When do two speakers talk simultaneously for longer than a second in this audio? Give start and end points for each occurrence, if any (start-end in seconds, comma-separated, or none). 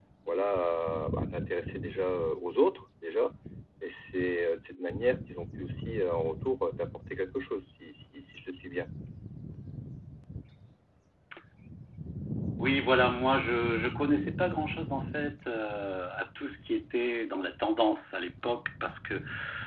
none